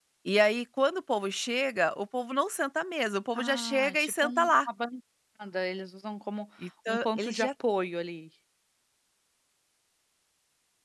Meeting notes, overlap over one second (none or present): present